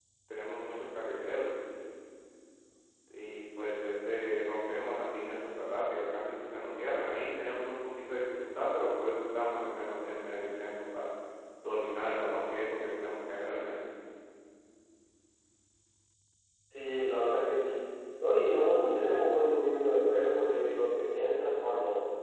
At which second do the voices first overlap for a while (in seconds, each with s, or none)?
none